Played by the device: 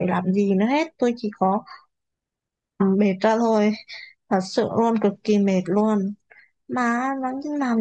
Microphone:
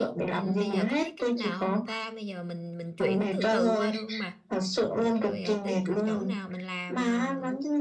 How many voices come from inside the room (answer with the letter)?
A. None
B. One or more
B